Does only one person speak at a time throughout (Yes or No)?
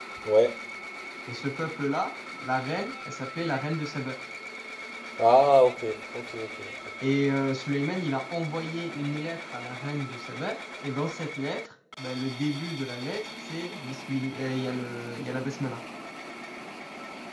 Yes